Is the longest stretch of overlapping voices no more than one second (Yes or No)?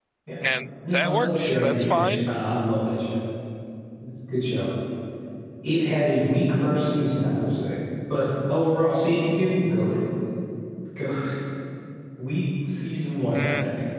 No